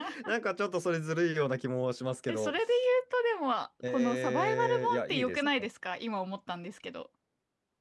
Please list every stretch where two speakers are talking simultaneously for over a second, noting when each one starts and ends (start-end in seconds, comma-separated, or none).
3.8-5.5